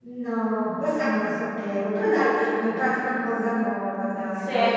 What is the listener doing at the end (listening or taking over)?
taking over